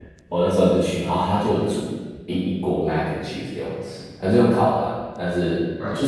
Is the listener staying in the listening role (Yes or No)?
Yes